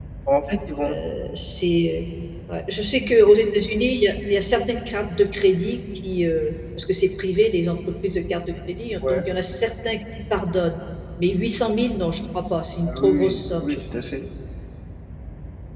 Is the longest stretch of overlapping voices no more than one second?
No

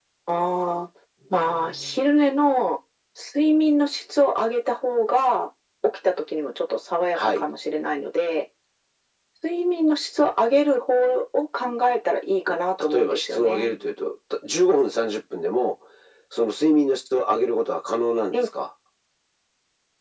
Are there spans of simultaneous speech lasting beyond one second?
Yes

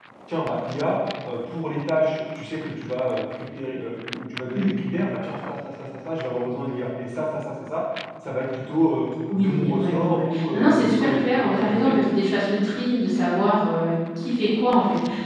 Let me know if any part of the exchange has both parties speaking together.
Yes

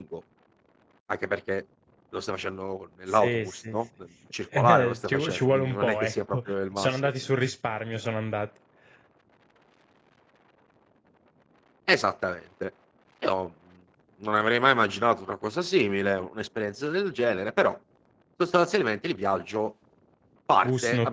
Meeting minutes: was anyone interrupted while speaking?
Yes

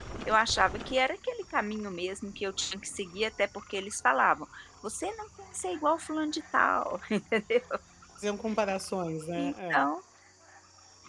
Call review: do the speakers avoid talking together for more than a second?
Yes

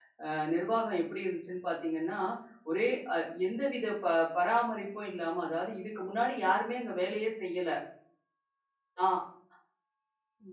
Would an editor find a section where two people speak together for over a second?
No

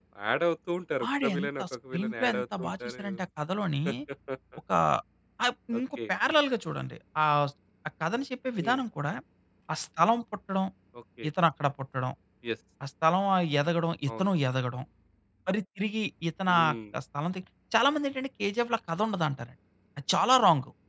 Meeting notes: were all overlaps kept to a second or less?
No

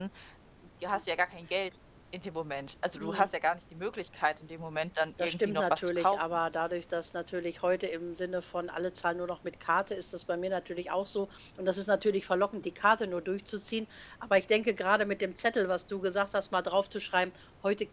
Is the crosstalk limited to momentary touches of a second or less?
No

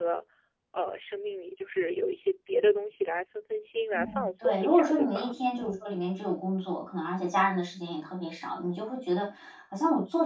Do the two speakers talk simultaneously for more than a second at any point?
Yes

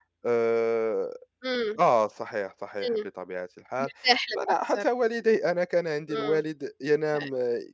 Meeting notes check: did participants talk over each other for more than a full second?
No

